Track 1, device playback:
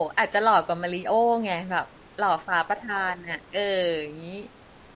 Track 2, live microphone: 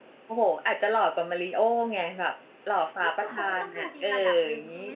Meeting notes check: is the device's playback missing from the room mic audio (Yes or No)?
No